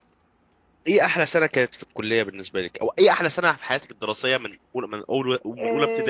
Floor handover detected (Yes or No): Yes